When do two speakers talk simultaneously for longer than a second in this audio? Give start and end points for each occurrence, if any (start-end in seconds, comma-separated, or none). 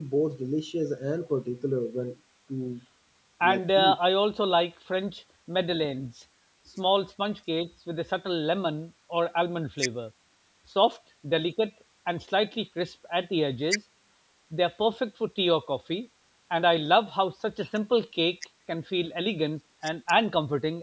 none